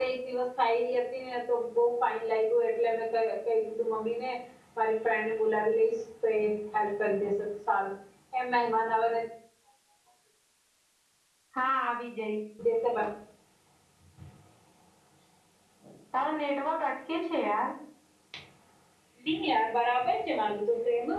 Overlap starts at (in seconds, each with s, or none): none